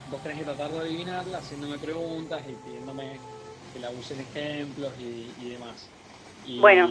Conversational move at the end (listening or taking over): listening